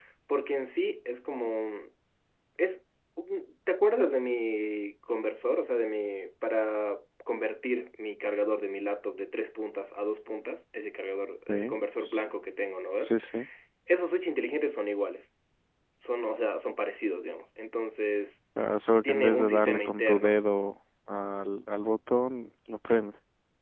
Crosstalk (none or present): present